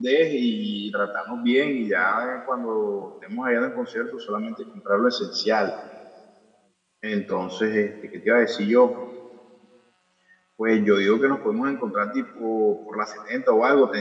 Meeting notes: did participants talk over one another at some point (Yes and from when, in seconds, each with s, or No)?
No